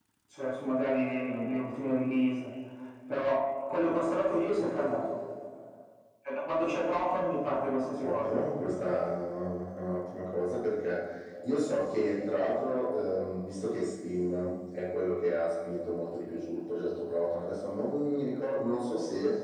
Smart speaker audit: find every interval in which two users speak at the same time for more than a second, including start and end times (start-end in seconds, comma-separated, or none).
none